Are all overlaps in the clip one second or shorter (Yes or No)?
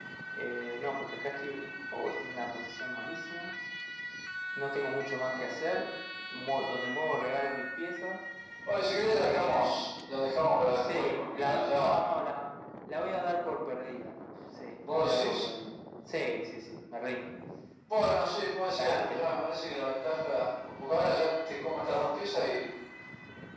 No